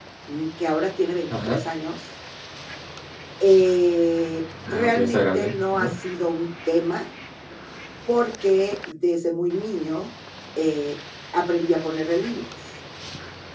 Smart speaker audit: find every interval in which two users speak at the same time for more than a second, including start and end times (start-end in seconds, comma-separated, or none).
4.7-5.9